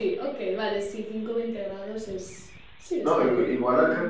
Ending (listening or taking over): taking over